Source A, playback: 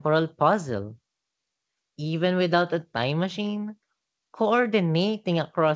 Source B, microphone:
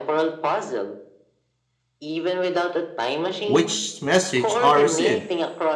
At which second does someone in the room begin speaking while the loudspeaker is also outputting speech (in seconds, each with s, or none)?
3.4 s